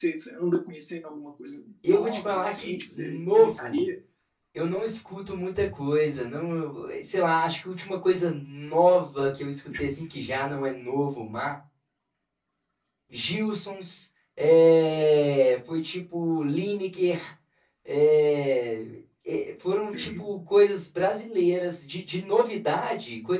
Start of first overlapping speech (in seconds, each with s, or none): 1.9 s